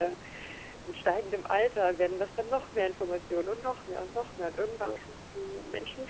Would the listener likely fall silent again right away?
Yes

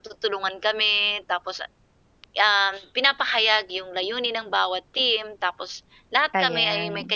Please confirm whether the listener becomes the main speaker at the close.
No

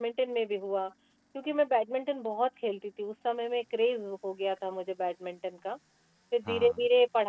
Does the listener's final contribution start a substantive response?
No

